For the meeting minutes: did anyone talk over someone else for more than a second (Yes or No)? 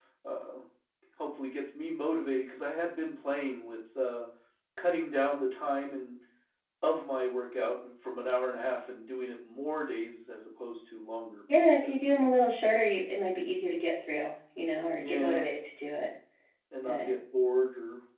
No